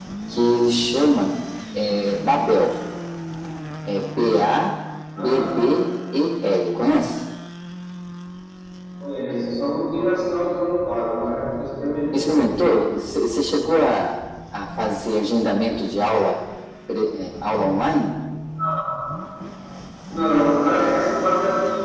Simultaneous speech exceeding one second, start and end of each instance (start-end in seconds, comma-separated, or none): none